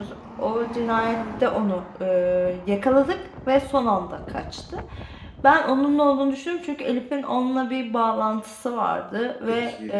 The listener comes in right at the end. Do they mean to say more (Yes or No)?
No